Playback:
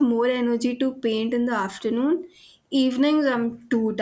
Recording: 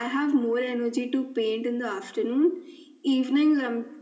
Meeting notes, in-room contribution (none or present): none